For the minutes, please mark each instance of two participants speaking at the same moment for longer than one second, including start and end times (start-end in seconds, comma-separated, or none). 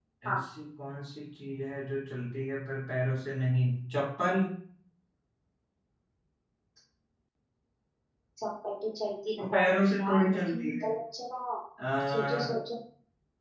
9.4-10.9